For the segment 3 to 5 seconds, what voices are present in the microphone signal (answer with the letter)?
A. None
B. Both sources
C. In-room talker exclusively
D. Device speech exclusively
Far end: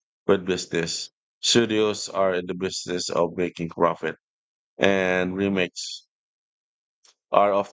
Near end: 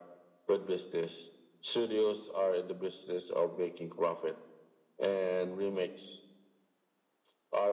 D